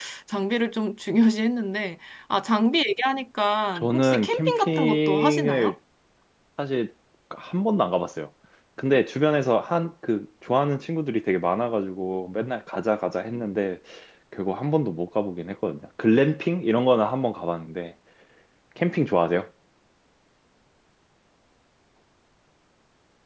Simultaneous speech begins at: 3.8 s

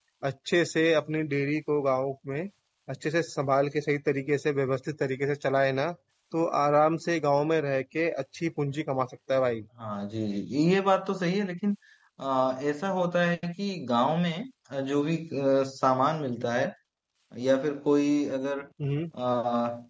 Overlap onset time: none

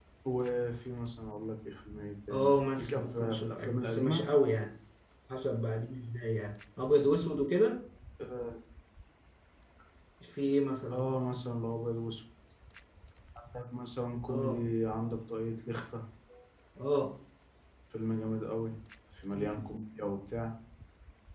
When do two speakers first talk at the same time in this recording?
2.3 s

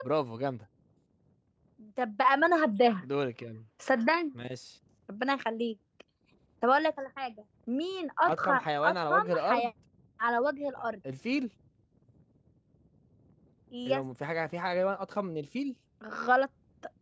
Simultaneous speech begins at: 8.2 s

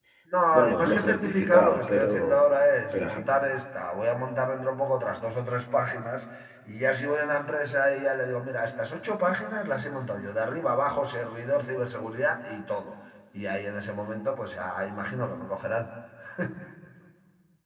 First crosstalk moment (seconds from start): 0.5 s

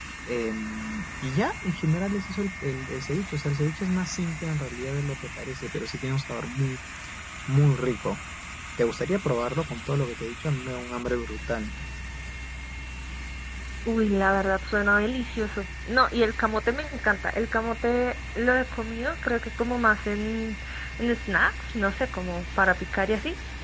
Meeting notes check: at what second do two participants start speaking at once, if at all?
none

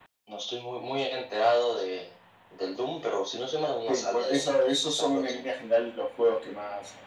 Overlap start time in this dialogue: 3.9 s

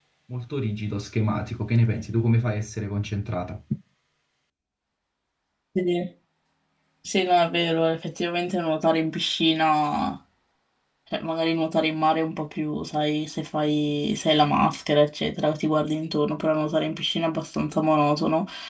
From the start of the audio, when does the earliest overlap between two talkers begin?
none

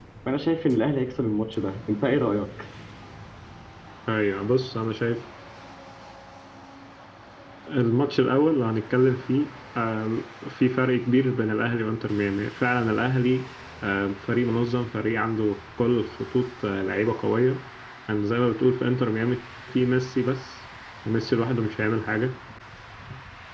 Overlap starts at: none

